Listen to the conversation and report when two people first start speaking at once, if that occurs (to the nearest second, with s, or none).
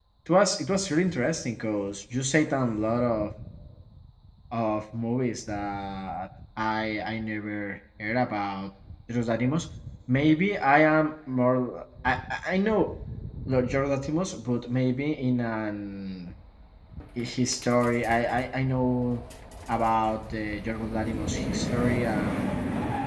none